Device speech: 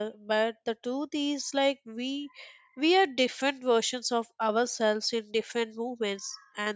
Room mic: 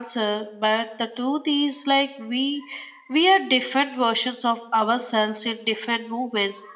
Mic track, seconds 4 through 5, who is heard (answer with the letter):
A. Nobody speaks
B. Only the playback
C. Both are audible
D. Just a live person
B